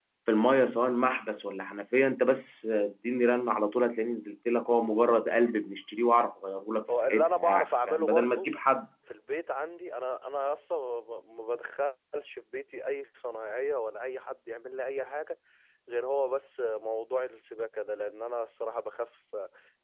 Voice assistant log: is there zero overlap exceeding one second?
No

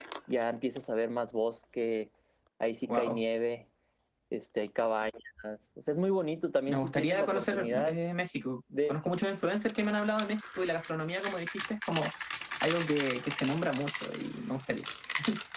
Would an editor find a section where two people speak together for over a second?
Yes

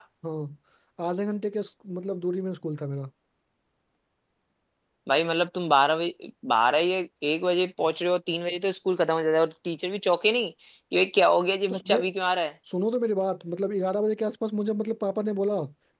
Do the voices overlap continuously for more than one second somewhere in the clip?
No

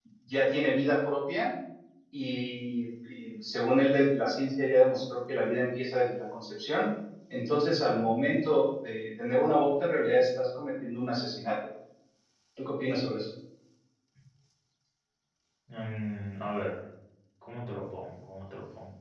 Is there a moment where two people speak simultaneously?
No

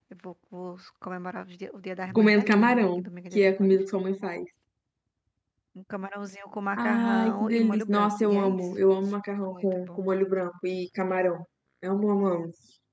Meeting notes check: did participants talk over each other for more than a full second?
Yes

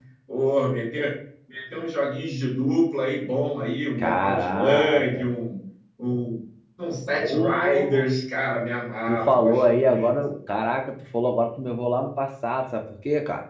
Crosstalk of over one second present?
Yes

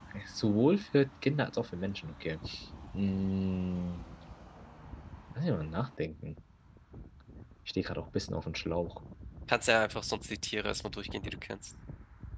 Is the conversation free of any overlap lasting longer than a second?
Yes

